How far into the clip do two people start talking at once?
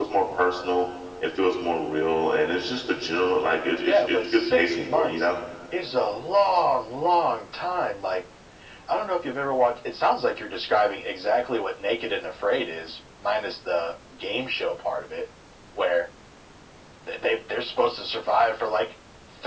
3.9 s

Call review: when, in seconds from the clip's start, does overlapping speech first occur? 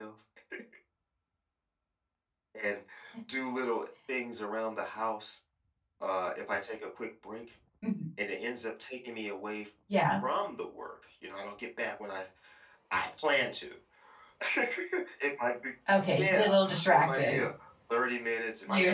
16.2 s

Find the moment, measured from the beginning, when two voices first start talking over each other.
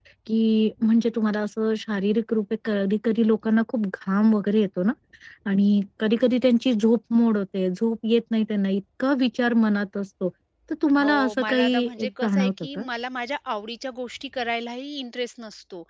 11.0 s

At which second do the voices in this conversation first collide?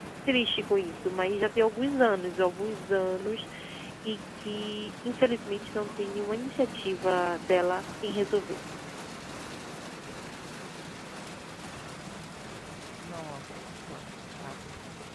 none

